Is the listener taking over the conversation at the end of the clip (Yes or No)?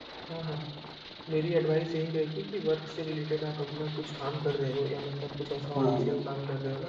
No